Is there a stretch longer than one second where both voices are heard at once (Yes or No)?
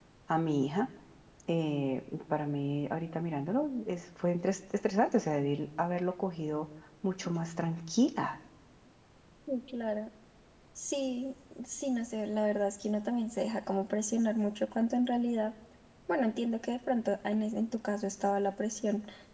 No